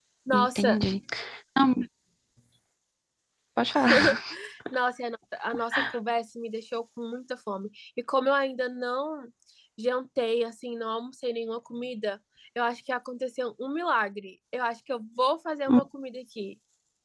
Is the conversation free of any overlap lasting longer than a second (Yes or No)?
Yes